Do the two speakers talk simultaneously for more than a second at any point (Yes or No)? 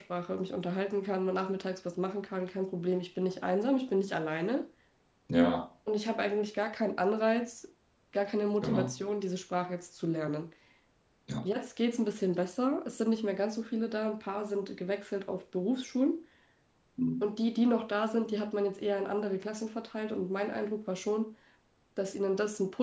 No